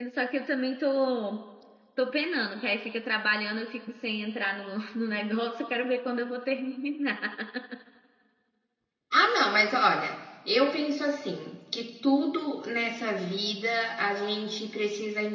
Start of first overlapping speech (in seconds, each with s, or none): none